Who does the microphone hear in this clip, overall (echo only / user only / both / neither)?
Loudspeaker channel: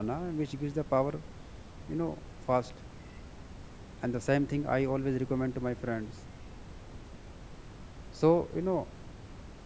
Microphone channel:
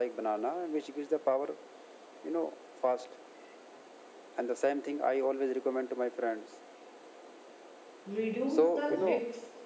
both